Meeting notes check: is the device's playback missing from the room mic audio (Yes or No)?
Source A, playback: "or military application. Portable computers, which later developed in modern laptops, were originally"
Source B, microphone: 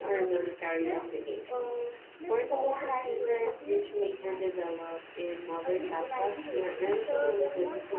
No